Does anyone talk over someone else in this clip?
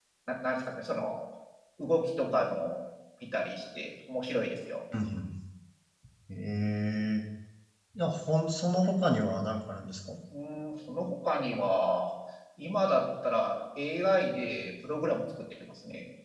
No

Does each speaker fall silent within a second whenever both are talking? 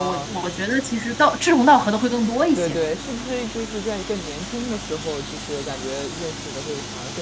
Yes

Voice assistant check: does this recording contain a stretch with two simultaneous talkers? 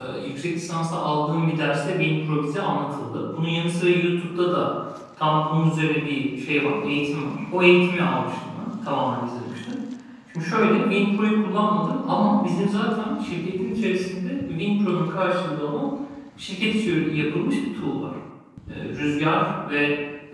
No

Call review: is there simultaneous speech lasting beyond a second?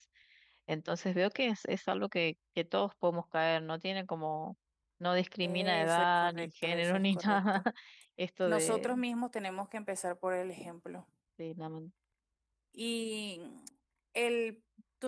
Yes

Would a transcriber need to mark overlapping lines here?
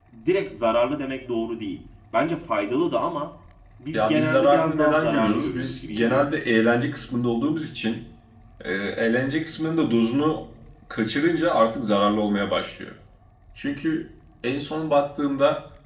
Yes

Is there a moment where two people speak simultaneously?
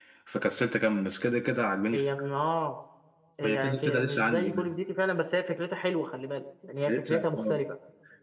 Yes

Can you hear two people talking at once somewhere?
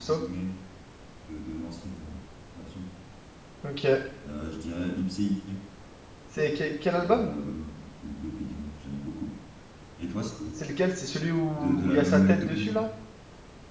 Yes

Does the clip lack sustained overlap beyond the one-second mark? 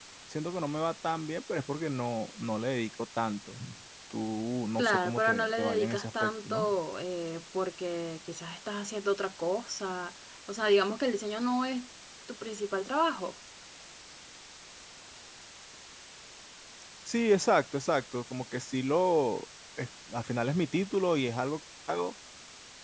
No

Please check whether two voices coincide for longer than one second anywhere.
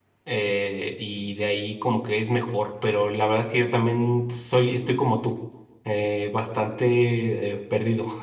No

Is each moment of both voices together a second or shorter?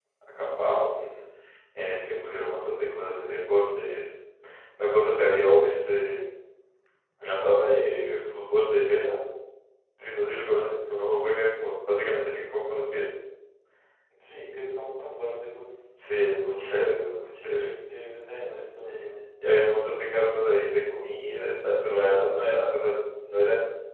Yes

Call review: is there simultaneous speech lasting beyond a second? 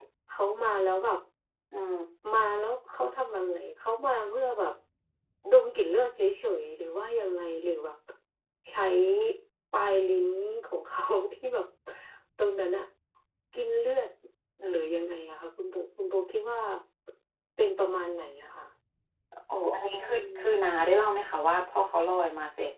No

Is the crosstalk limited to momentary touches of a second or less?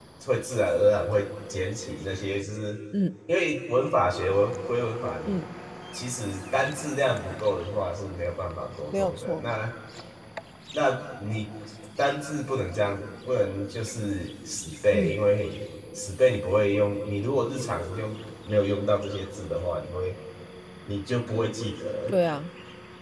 Yes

